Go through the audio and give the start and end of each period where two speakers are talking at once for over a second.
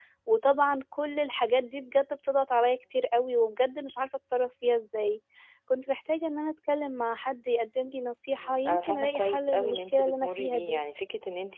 8.4-10.6

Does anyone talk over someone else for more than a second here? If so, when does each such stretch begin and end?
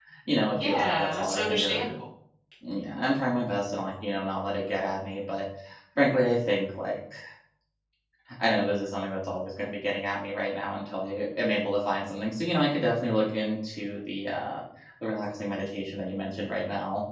0.6-1.9

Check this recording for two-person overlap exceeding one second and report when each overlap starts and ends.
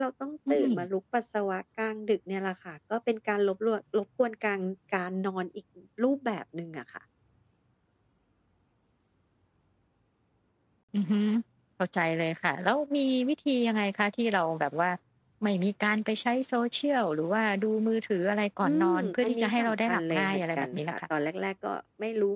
18.6-21.0

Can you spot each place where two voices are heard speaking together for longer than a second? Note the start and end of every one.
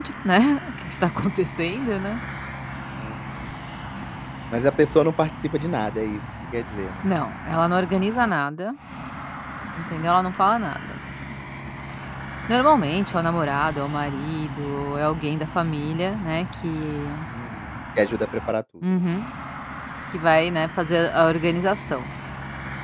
none

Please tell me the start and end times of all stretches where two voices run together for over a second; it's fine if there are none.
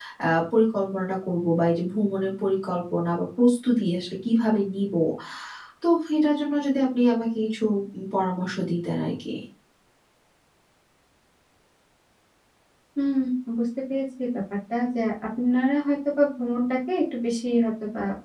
none

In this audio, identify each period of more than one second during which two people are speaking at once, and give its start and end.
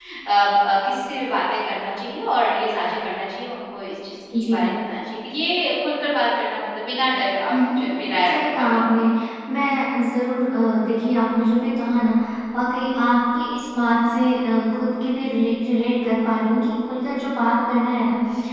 7.5-8.8

